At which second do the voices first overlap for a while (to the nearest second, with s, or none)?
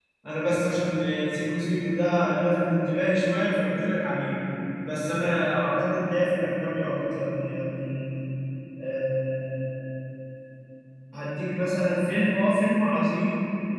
none